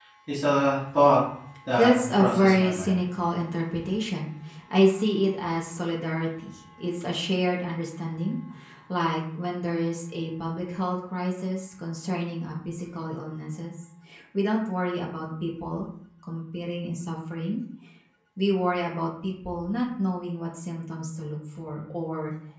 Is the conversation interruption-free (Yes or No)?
No